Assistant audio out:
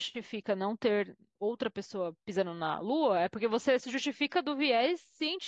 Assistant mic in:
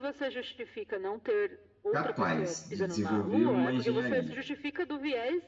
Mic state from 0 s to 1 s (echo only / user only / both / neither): echo only